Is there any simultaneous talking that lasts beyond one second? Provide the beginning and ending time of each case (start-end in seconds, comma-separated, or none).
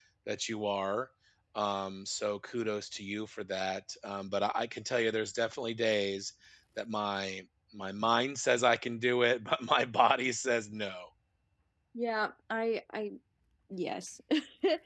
none